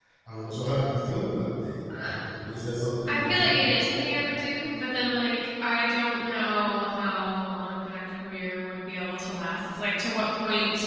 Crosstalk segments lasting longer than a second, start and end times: none

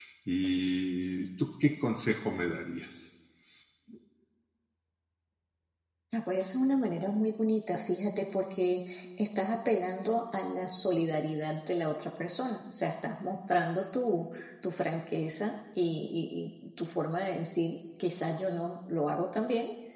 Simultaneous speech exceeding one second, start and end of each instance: none

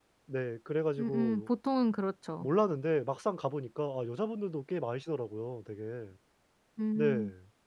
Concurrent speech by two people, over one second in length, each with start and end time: none

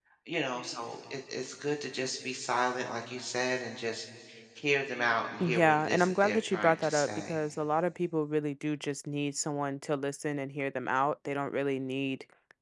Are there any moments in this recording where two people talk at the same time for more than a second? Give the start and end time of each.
5.4-7.3

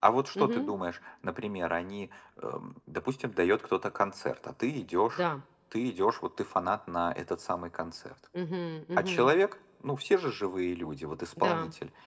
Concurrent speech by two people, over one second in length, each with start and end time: none

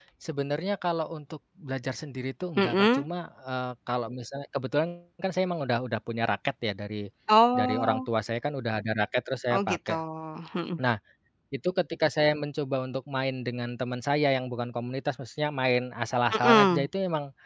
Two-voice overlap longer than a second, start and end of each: none

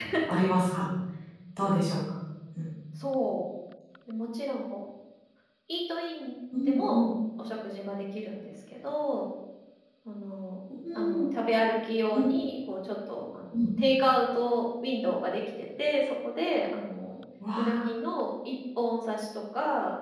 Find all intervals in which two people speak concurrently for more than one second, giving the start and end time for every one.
none

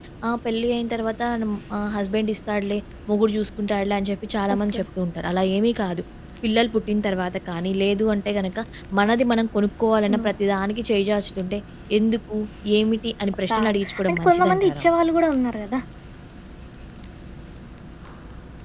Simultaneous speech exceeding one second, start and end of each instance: 13.5-14.8

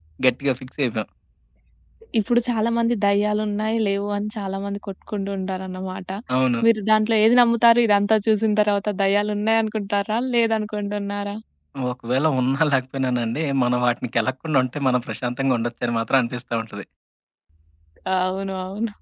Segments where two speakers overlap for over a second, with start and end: none

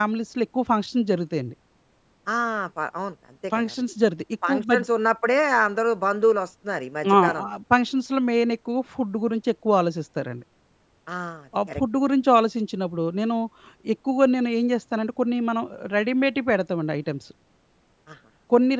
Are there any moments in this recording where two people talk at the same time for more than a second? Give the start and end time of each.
none

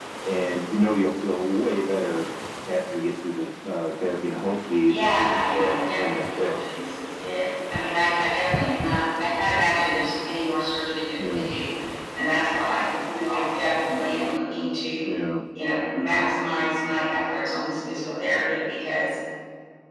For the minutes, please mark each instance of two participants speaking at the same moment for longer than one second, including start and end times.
4.9-6.5

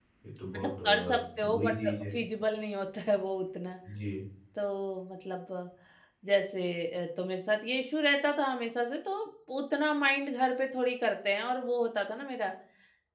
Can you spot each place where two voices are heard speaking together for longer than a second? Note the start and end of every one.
0.5-1.9

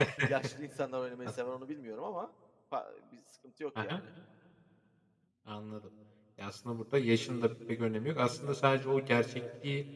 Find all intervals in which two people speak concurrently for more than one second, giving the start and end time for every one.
none

